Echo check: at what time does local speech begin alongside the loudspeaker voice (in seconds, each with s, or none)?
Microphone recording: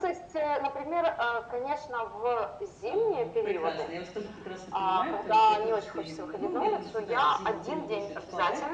2.8 s